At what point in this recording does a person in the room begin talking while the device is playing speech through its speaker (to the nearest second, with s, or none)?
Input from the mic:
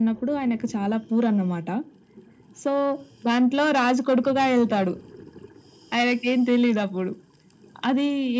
none